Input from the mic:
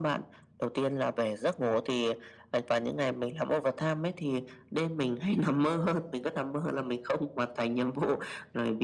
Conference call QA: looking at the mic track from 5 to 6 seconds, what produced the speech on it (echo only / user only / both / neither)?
echo only